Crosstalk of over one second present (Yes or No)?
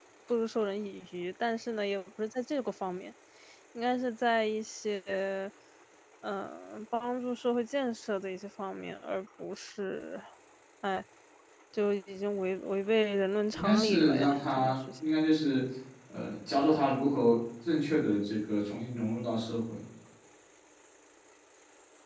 Yes